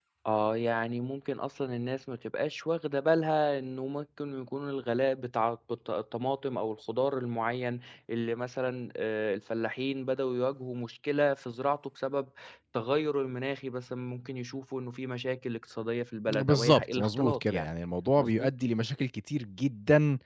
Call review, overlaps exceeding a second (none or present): present